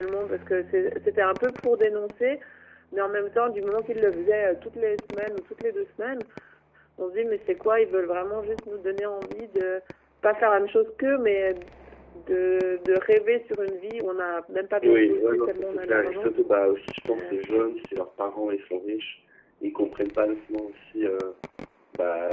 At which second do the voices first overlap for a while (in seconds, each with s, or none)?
14.8 s